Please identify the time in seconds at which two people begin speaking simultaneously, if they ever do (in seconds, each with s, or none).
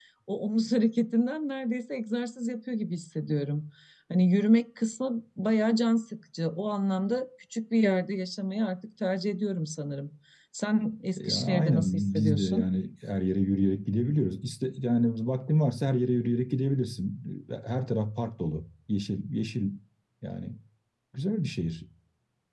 11.2 s